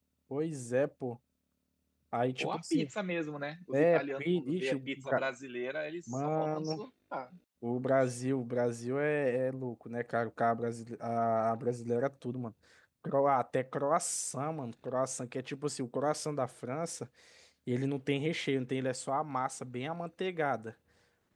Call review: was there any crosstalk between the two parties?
Yes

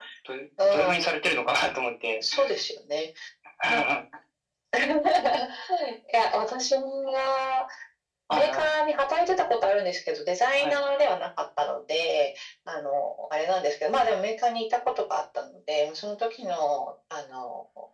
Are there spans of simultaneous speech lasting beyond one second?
No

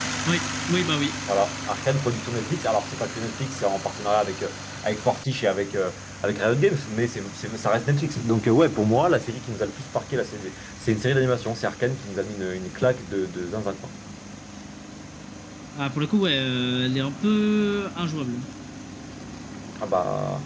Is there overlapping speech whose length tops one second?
No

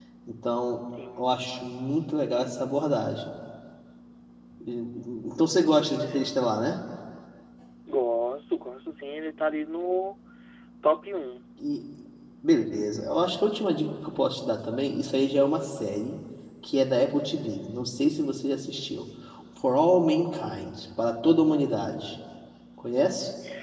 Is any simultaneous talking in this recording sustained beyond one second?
No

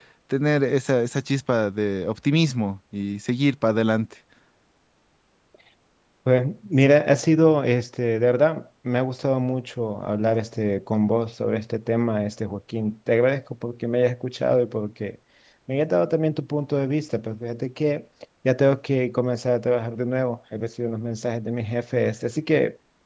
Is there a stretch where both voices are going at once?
No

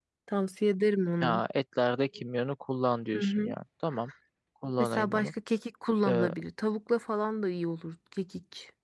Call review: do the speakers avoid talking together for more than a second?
Yes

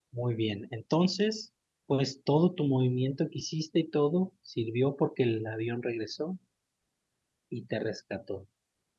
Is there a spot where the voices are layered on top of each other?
No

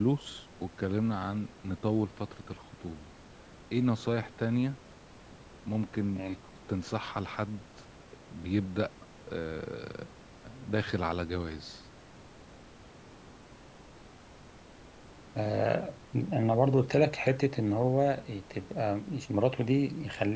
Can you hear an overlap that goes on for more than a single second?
No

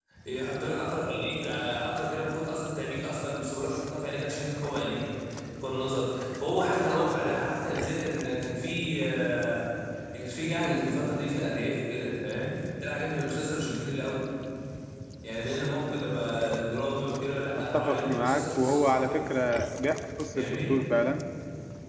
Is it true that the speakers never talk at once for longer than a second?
No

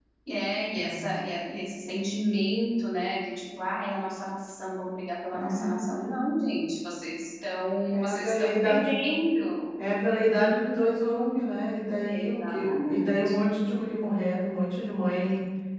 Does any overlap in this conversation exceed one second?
Yes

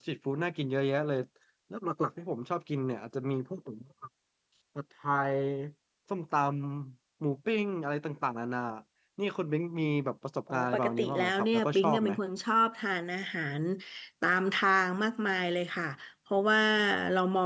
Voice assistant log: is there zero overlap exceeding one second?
No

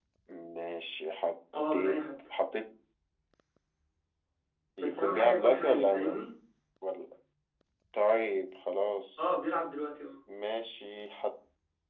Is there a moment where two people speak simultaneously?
Yes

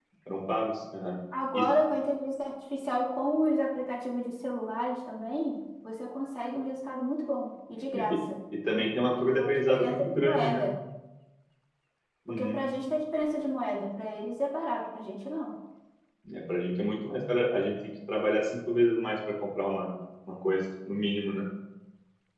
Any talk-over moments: Yes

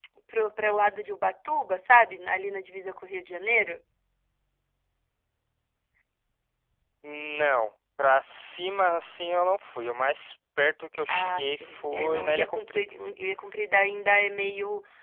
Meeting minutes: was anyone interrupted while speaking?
Yes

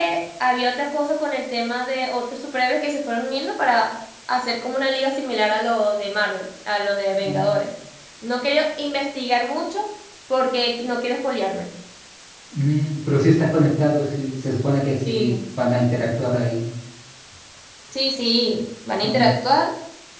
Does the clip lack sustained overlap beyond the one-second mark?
Yes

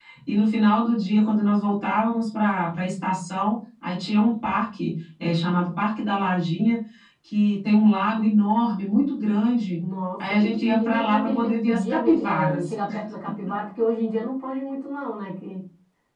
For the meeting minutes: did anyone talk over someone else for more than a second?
Yes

